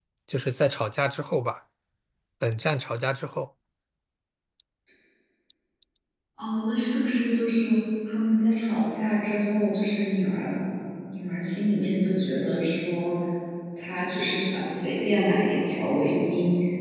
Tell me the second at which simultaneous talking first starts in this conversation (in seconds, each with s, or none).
none